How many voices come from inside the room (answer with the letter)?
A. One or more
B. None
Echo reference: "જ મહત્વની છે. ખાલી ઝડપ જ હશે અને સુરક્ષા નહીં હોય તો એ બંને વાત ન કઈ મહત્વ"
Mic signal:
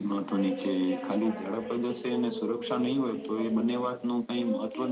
A